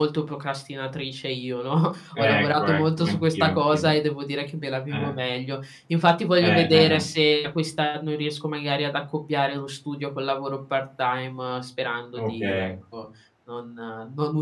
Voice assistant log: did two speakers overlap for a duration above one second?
Yes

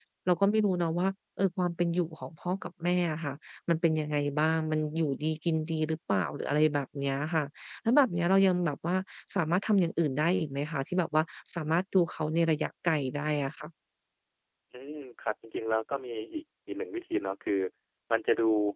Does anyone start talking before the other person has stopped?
No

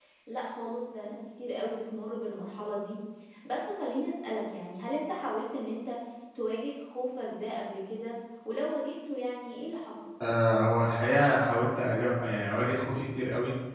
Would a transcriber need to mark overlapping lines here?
No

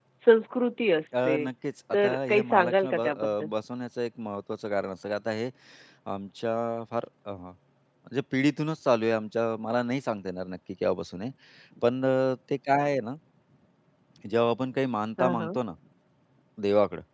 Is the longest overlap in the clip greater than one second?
Yes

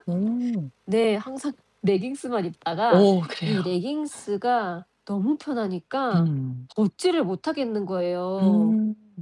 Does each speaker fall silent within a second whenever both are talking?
Yes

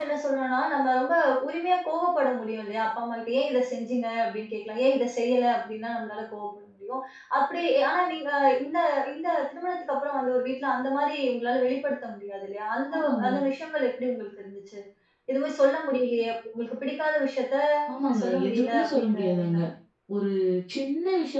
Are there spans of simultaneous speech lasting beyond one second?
Yes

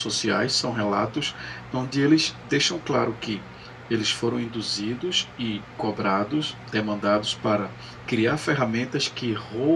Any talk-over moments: No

